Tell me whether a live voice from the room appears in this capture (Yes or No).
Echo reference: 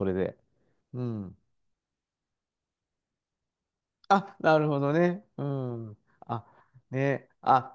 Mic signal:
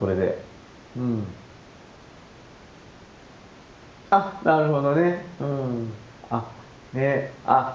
No